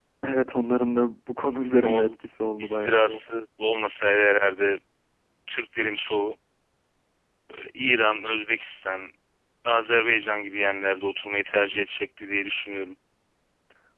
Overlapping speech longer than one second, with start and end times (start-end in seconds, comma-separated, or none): none